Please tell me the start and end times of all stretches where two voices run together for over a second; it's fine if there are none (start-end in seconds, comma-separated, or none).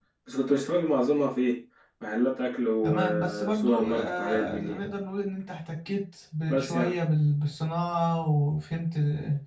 2.8-4.8